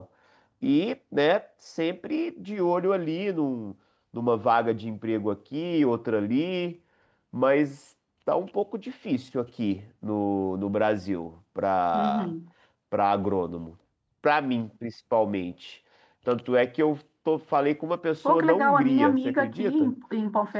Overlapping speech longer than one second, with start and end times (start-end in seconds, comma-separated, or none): 18.3-19.9